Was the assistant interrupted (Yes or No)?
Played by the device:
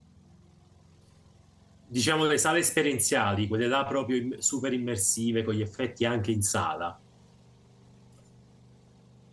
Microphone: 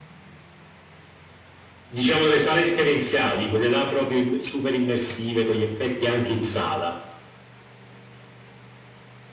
No